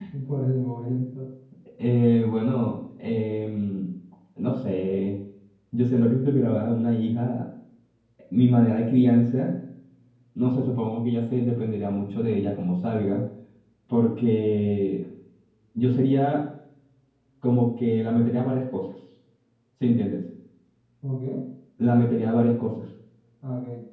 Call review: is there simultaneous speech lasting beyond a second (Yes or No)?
No